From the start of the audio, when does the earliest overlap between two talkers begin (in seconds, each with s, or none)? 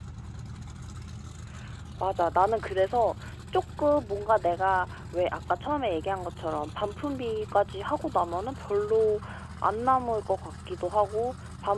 none